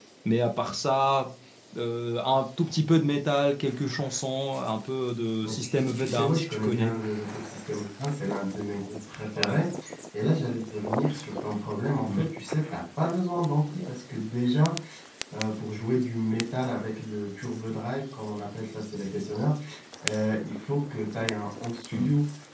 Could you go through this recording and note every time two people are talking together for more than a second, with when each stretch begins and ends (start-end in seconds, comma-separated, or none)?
5.4-7.0